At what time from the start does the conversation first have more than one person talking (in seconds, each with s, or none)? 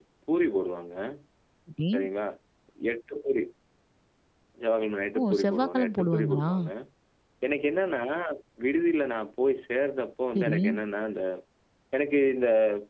5.2 s